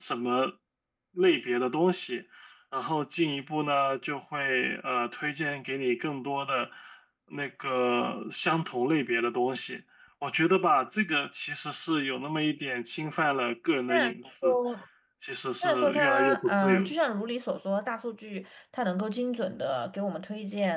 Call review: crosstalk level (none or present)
present